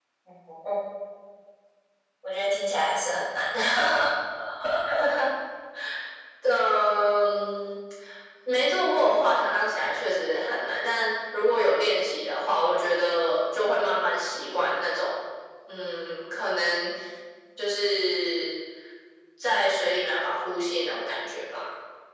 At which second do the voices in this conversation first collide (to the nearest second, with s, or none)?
none